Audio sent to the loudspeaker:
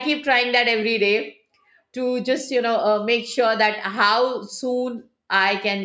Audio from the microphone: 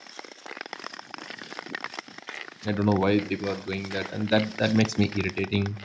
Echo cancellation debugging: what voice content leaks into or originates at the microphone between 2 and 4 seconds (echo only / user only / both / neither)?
user only